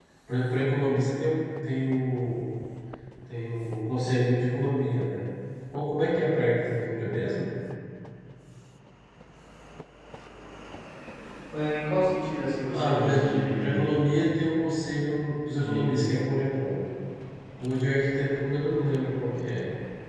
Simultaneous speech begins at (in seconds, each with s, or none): 12.7 s